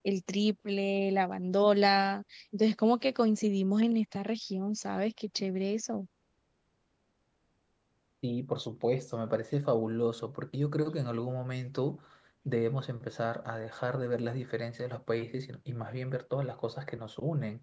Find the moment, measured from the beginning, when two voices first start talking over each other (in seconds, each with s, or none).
none